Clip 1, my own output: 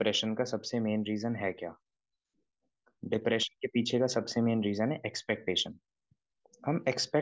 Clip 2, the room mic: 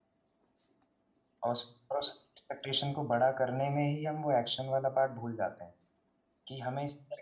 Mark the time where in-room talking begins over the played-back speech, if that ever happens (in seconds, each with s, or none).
1.5 s